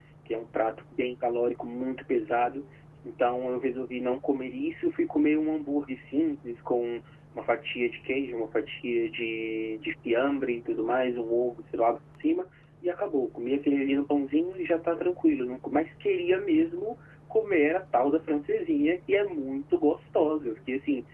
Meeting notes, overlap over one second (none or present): none